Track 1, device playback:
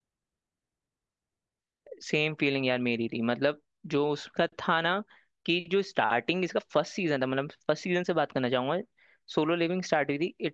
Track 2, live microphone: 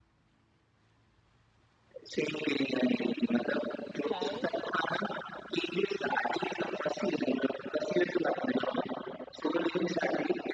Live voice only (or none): लाए